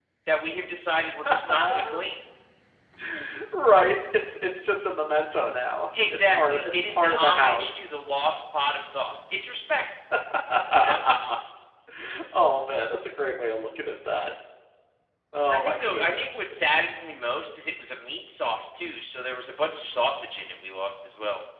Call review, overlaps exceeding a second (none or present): present